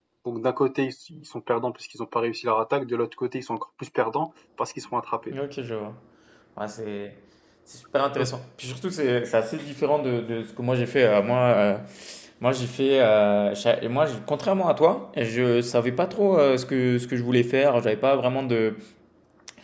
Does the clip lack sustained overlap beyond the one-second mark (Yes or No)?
Yes